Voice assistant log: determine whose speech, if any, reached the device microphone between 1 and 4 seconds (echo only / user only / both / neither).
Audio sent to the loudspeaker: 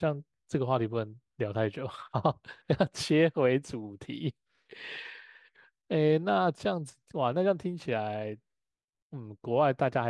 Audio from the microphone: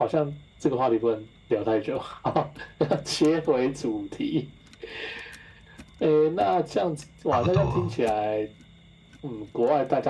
echo only